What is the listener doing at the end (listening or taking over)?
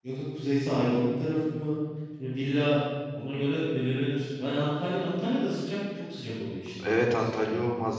taking over